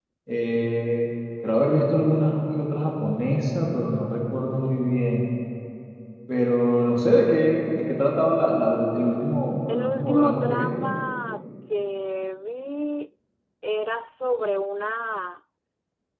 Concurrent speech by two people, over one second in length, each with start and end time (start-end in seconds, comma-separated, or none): 9.7-10.9